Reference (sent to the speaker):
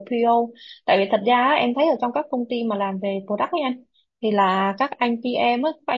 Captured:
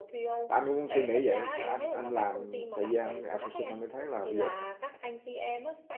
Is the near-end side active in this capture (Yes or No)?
Yes